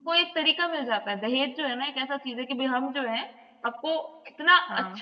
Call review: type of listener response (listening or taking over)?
listening